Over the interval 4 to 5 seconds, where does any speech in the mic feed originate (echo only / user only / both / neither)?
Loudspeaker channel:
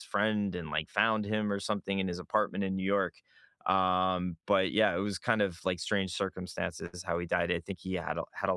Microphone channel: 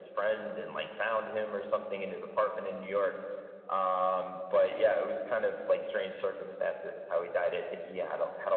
echo only